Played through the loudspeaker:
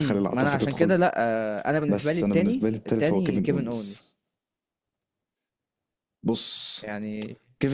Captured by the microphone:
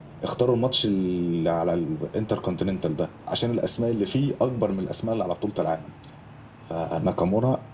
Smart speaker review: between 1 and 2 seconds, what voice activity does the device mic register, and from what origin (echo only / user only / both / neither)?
user only